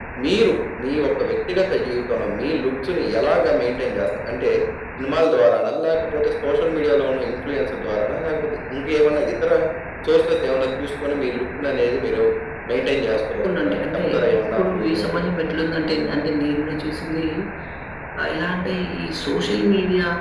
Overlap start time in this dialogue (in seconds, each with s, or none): 13.1 s